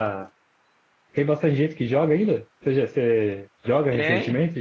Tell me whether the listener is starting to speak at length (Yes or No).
Yes